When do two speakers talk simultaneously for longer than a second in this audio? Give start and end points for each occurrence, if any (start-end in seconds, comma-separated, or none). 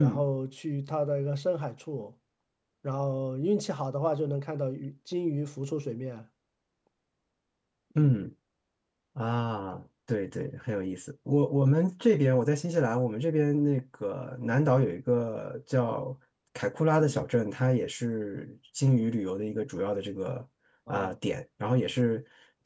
none